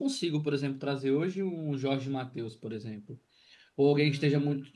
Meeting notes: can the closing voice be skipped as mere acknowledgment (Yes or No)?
Yes